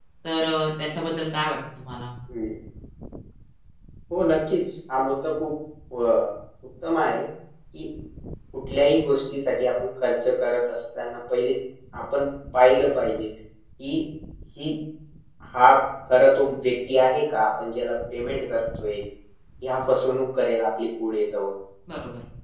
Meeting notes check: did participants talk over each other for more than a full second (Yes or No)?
No